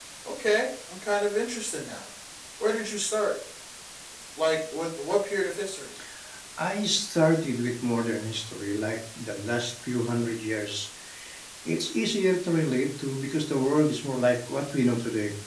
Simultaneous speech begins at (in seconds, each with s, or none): none